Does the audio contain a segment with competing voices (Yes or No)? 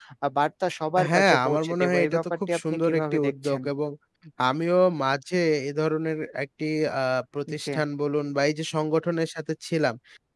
Yes